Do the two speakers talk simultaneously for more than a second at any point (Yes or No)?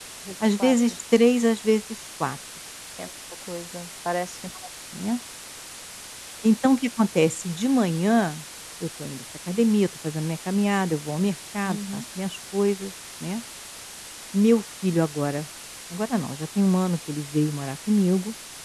No